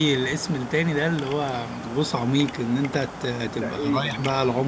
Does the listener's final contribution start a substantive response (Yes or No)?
No